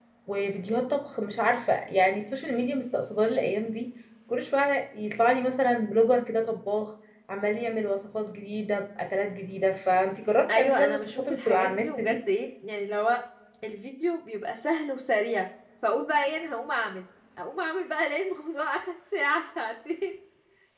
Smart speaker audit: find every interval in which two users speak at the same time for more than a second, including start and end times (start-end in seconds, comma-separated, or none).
10.5-12.2